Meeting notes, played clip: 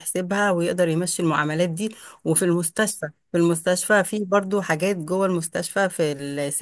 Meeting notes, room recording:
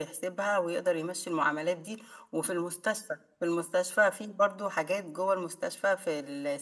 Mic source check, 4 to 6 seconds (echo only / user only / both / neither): echo only